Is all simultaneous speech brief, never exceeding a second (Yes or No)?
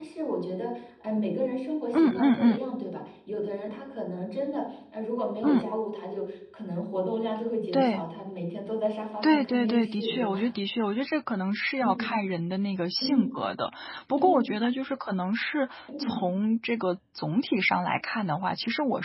No